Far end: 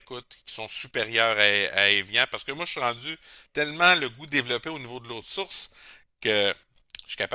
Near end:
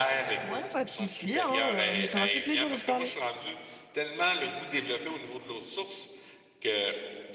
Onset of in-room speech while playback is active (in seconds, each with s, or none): 0.4 s